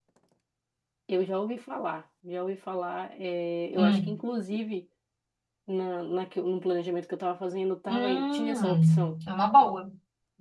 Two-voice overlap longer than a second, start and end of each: 7.9-9.1

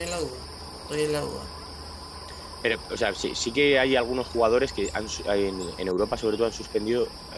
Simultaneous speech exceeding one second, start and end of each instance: none

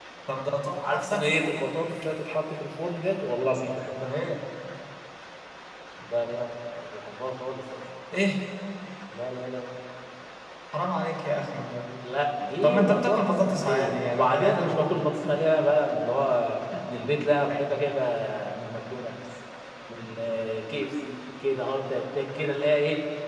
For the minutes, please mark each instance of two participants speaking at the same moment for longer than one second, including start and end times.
12.6-15.0

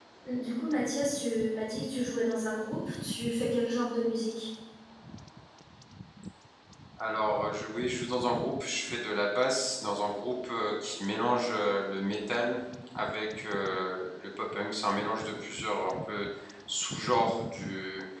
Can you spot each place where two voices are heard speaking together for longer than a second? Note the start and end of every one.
none

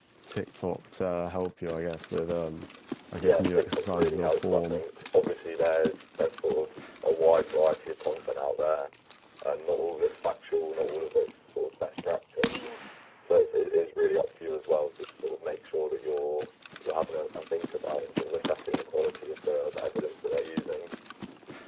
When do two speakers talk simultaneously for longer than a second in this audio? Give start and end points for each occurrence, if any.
3.2-4.8

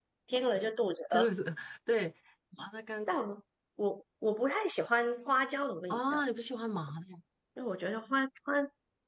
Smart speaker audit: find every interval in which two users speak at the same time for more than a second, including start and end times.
none

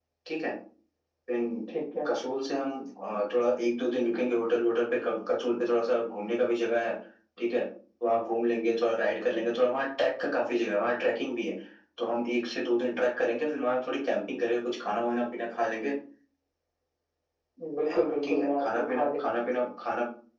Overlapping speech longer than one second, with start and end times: 17.9-19.3

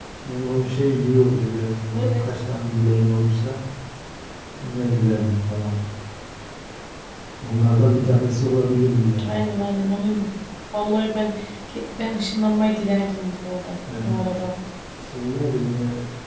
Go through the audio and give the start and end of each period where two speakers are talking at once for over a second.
none

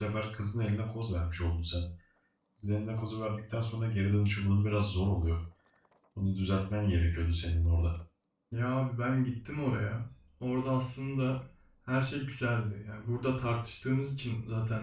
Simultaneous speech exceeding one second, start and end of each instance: none

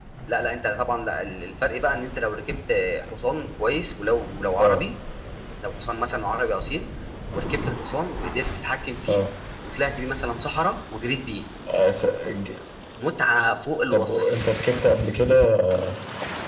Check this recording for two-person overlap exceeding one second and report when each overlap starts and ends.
none

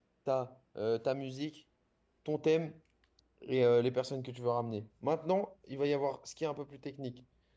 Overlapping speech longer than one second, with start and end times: none

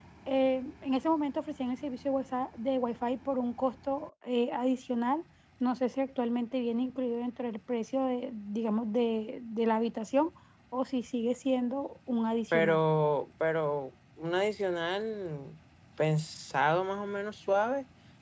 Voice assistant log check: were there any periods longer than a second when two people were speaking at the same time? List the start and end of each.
none

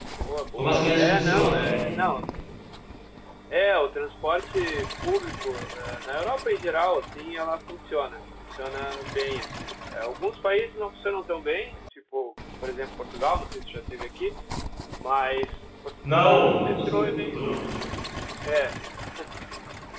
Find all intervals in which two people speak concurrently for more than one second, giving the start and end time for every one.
0.6-2.0, 16.0-17.6

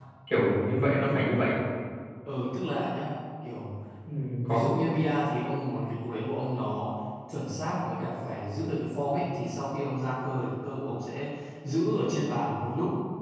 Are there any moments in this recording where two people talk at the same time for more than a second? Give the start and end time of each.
none

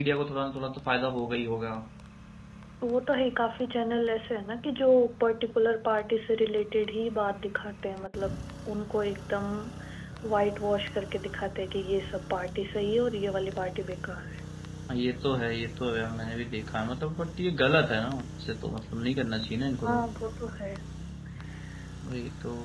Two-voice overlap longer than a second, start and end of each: none

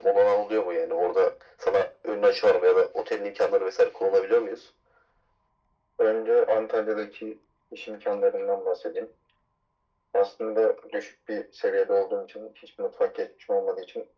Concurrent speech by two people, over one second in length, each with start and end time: none

